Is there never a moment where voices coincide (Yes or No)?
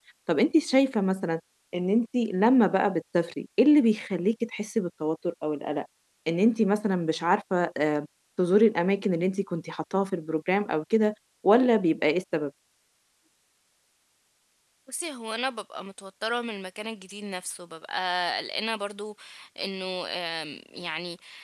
Yes